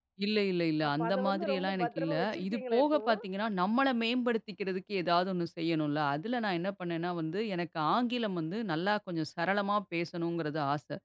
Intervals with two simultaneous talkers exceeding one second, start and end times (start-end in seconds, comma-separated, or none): 0.9-3.2